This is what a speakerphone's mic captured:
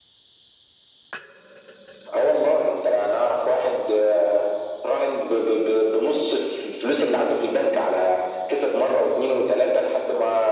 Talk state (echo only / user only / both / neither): echo only